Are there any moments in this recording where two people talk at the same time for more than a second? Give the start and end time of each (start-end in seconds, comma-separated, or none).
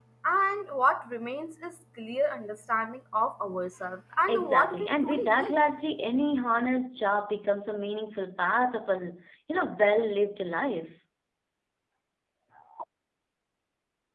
4.3-5.6